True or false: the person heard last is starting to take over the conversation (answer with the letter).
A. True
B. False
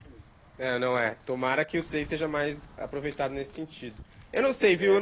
B